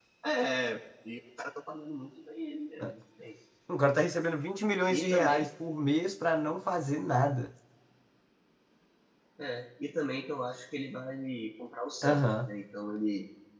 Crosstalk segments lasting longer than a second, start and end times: none

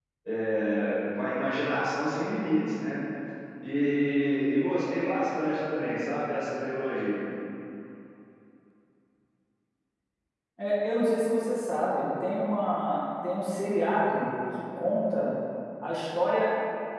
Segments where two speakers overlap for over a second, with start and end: none

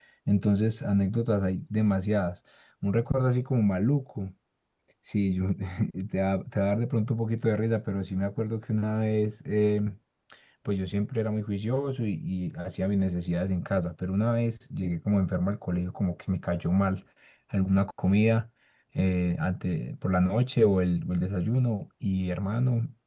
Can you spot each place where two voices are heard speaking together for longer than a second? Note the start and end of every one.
none

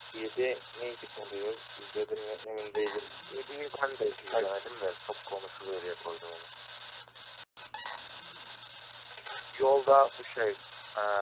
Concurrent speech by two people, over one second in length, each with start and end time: none

